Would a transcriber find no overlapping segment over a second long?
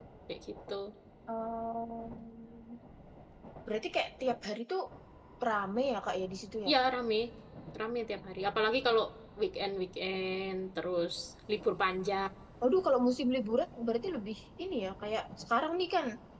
Yes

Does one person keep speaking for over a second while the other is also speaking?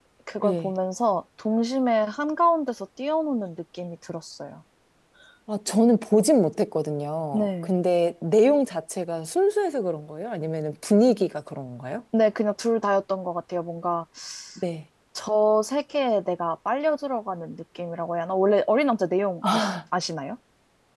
No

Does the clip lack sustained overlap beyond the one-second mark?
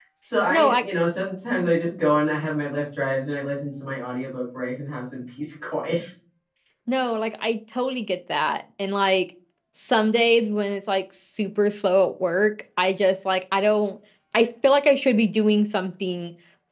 Yes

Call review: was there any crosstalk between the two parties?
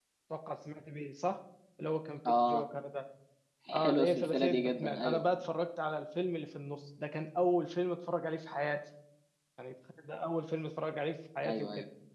Yes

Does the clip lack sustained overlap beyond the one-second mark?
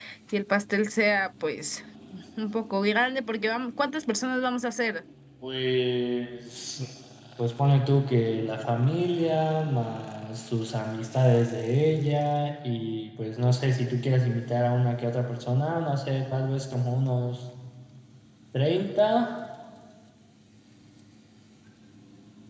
Yes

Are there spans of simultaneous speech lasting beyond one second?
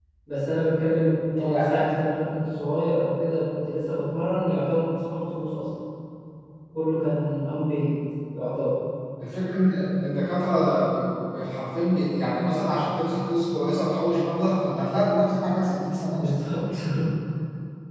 No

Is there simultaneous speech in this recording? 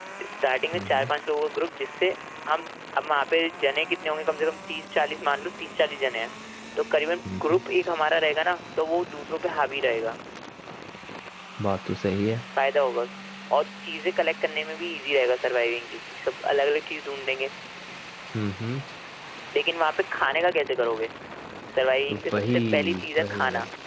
Yes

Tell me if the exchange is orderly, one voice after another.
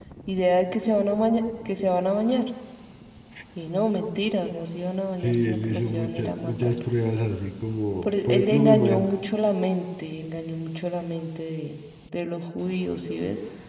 No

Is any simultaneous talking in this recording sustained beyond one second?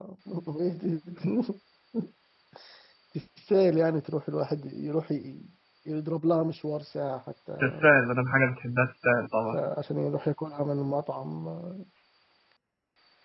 No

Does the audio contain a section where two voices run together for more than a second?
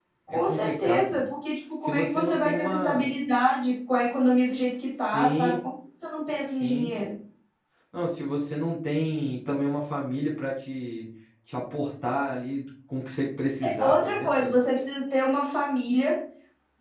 Yes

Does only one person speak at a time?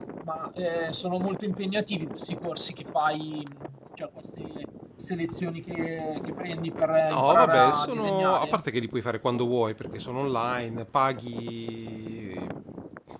No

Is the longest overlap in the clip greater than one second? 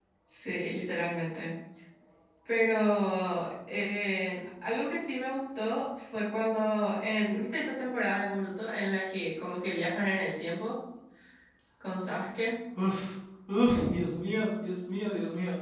No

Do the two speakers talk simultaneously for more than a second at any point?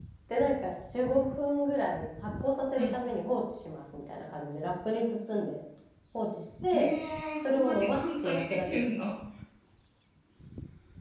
Yes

